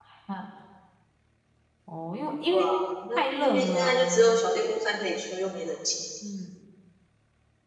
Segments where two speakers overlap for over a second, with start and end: 3.2-4.4

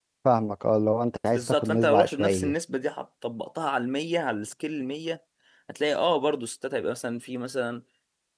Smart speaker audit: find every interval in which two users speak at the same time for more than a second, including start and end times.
1.3-2.5

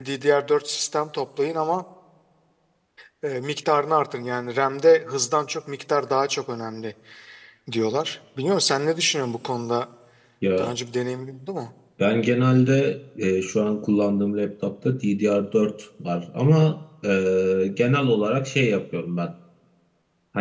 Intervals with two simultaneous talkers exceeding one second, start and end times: none

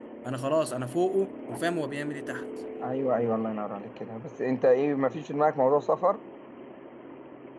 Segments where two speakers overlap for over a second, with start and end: none

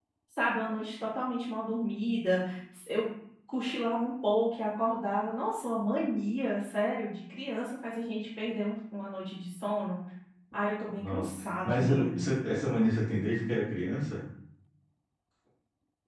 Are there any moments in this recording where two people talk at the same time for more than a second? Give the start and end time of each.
11.0-12.3

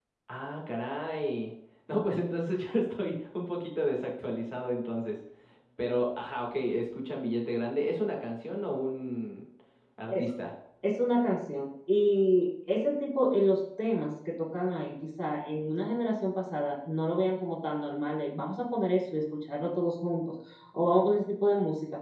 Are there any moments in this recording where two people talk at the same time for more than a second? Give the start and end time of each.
none

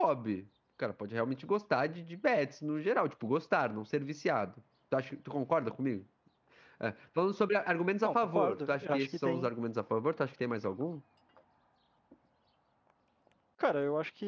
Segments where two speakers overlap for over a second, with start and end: 8.0-9.5

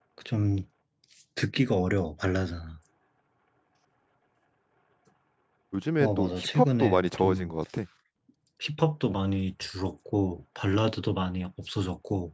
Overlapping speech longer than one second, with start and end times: 6.0-7.5

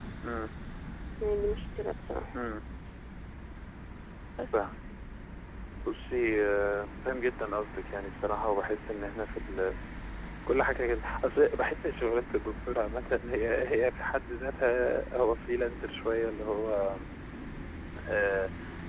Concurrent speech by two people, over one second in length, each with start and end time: none

